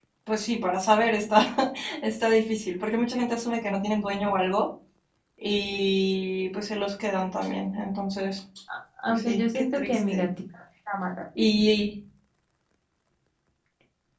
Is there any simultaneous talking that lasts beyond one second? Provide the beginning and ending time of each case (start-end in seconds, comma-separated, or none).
9.1-10.3